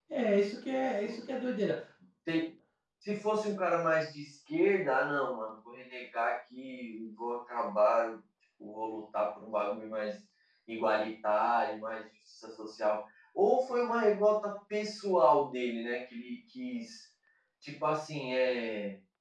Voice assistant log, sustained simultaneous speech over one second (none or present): none